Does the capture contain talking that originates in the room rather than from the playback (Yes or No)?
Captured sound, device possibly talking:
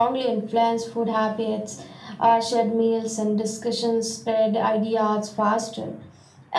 No